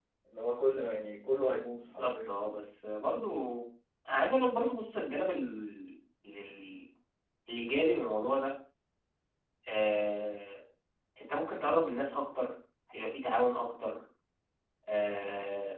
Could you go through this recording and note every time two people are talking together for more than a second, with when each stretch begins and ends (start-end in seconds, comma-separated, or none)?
none